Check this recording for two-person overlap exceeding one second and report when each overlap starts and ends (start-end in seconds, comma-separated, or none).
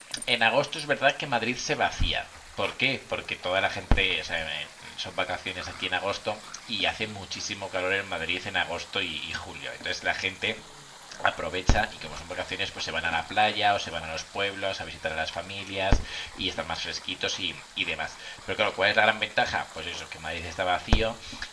none